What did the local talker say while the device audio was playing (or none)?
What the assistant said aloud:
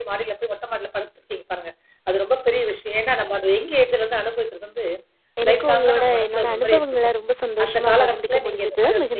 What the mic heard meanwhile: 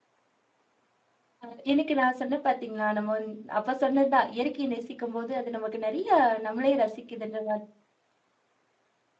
ஆ. அ எனக்கு நான் சொன்னேன் பார்த்தீங்களா, நம்ம வந்து அப்ப சொன்னது தான். இயற்கைய நேசிக்கும்போது, அது நமக்கு நெறைய நம்மளேயே ரசிக்குதுன்ற மாரி.